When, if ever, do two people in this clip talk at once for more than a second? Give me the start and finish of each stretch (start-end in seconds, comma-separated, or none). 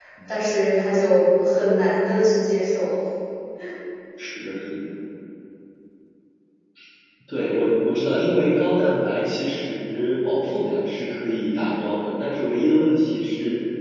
none